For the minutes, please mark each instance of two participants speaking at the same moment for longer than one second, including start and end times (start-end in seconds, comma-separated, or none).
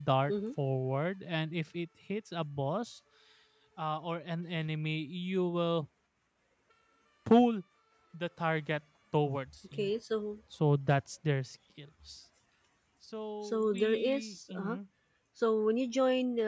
13.4-14.8